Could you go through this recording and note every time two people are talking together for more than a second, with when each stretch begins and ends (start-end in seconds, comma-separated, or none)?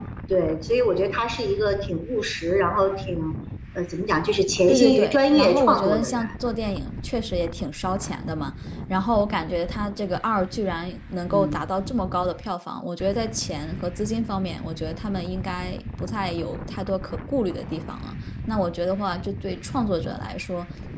4.7-6.2